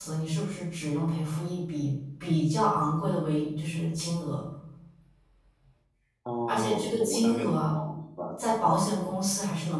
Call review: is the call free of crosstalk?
No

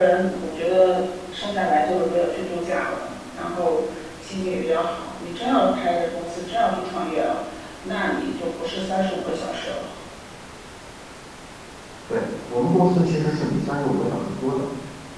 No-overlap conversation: Yes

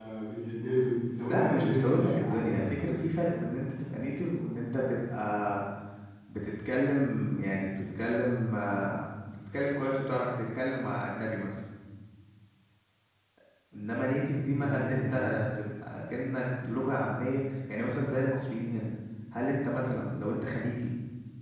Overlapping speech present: Yes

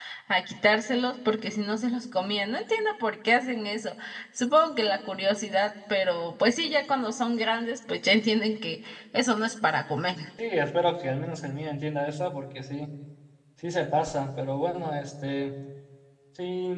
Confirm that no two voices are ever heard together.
Yes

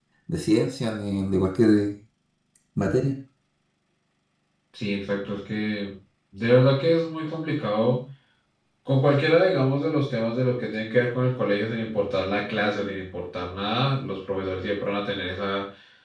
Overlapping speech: No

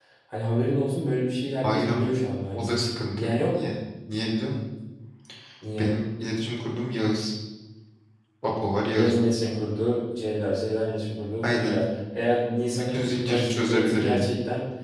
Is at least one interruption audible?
Yes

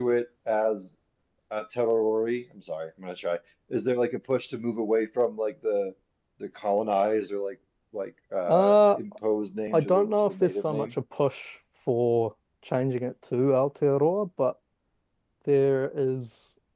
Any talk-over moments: Yes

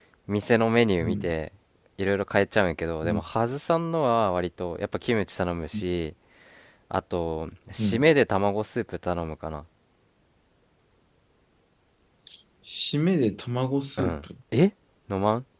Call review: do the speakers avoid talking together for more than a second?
Yes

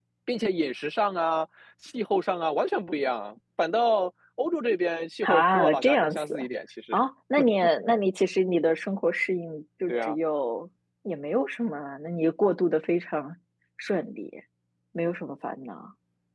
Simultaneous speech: Yes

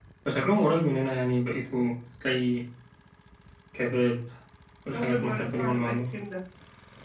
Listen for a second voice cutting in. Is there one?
Yes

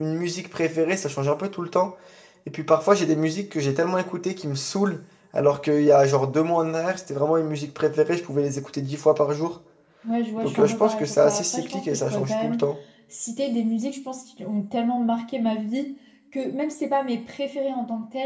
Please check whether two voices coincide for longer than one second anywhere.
Yes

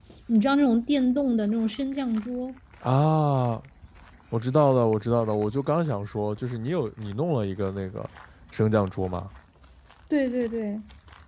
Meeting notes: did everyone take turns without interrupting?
Yes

